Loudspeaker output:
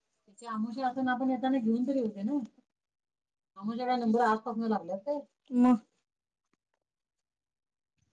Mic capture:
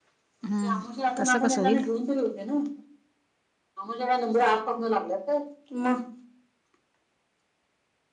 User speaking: Yes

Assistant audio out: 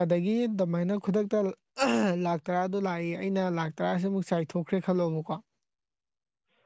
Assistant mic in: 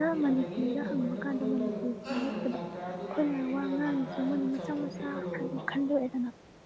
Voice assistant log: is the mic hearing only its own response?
No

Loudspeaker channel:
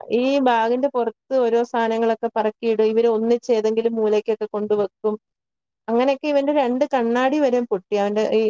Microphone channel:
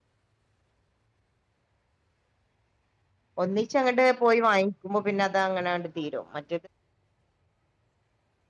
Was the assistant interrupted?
Yes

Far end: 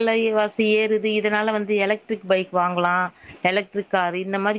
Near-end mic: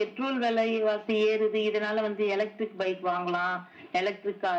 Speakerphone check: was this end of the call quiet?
Yes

